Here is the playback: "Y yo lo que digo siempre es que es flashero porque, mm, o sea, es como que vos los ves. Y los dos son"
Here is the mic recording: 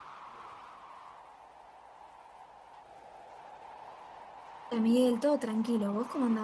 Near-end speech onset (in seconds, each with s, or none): 4.7 s